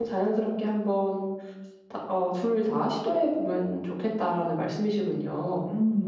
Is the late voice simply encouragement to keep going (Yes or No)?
No